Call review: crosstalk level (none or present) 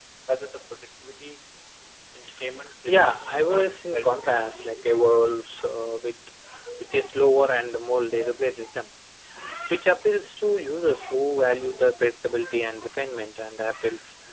present